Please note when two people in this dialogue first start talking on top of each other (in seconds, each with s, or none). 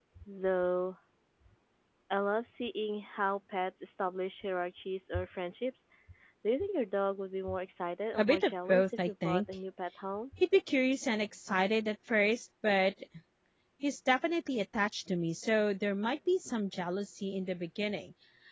8.2 s